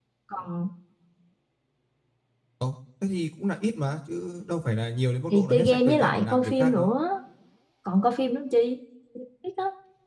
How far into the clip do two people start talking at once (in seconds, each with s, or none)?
5.3 s